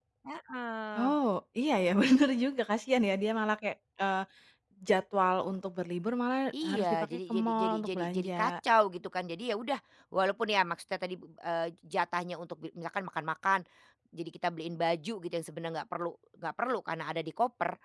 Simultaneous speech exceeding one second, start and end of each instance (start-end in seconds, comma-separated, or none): 6.6-8.5